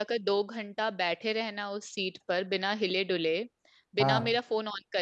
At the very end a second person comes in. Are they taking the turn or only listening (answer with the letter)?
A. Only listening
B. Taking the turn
A